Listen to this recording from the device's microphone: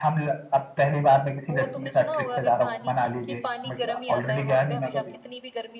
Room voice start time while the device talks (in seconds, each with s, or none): 1.5 s